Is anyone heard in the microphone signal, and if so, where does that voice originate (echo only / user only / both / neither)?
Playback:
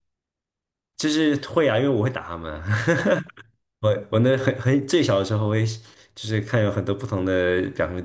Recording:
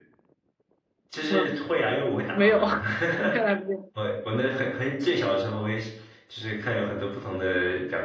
both